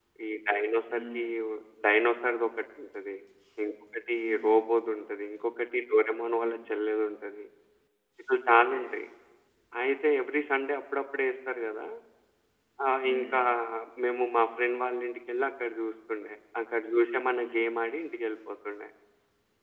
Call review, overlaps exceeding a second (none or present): none